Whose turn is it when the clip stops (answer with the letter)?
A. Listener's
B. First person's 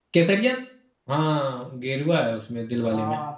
A